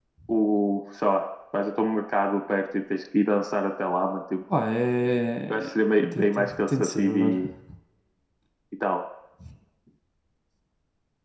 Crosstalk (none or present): present